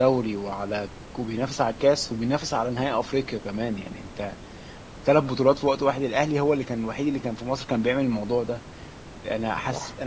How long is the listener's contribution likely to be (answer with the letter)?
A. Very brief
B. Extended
A